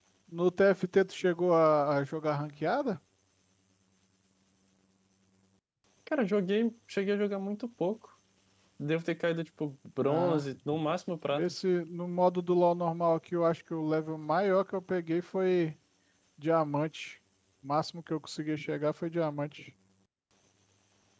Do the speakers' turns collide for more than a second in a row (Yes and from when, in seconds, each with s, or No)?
No